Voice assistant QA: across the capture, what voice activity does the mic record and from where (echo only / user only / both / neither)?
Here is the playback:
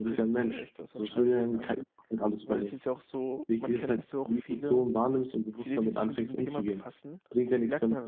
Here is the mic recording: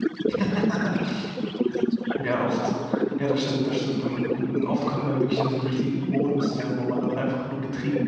both